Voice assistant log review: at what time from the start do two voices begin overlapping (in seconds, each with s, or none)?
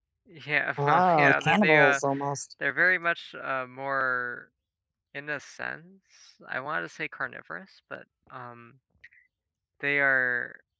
0.8 s